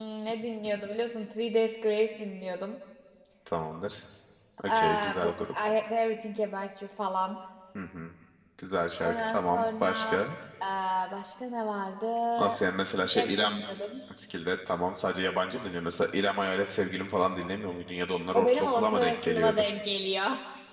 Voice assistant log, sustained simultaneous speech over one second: present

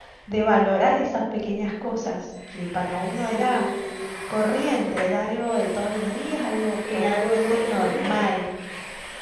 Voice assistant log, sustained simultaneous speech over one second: present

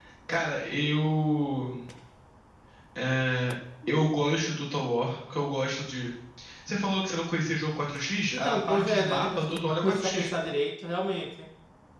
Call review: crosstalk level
present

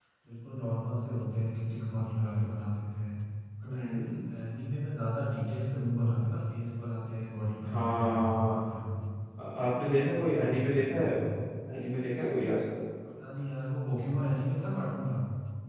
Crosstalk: present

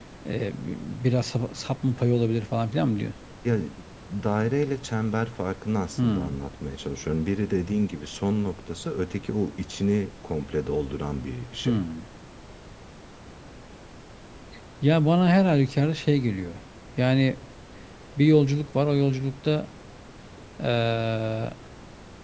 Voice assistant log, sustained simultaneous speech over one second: none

